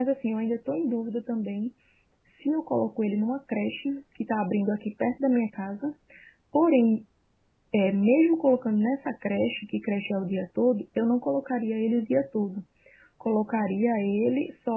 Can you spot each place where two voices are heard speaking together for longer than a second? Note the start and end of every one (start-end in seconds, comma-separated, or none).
none